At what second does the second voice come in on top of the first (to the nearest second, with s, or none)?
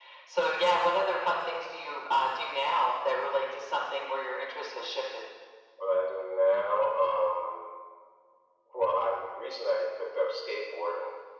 none